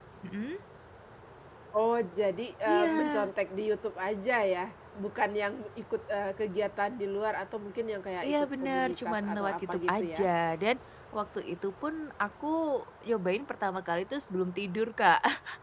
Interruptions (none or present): present